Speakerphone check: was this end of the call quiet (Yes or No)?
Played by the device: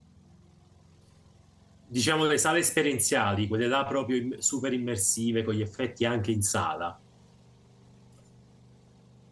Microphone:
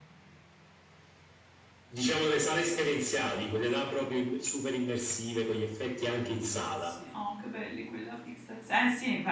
No